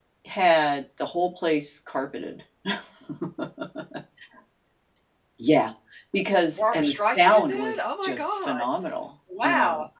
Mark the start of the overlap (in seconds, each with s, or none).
6.6 s